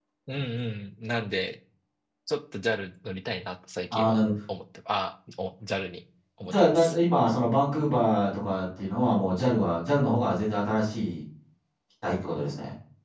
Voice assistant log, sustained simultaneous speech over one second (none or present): none